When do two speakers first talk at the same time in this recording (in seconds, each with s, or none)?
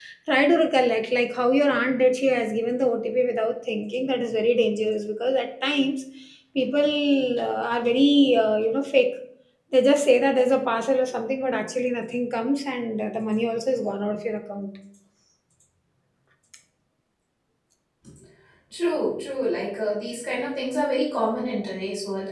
none